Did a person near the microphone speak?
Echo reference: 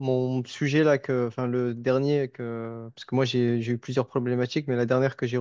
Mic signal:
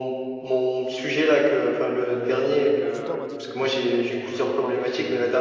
Yes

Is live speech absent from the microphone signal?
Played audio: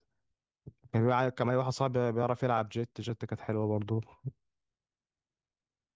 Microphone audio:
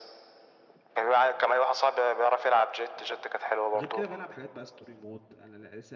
No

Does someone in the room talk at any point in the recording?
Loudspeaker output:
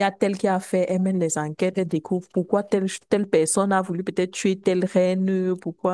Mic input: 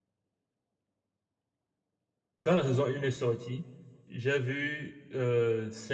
Yes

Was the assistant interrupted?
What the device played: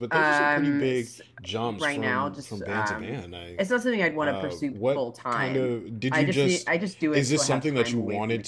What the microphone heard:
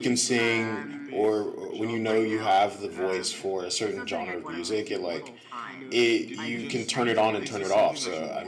Yes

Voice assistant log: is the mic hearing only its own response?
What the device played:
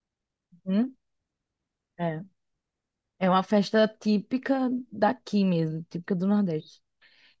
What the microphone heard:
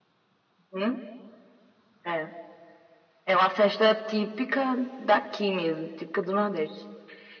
Yes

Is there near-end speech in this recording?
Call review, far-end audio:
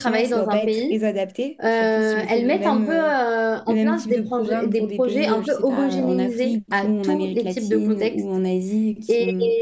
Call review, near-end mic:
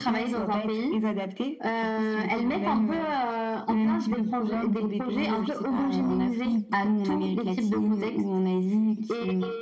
No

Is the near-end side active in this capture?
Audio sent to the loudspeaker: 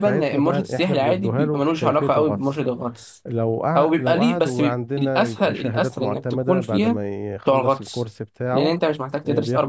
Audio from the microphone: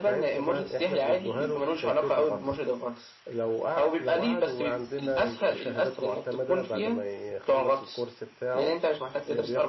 No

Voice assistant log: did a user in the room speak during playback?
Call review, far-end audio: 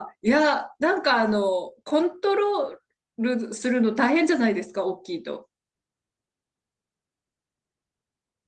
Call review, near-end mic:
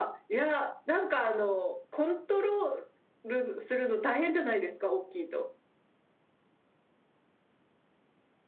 No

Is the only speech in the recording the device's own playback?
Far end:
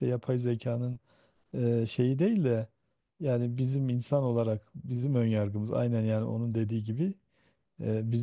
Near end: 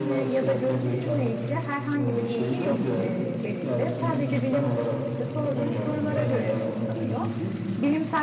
No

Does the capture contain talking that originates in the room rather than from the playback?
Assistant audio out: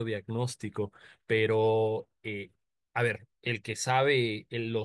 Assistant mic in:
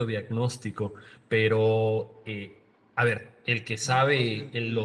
Yes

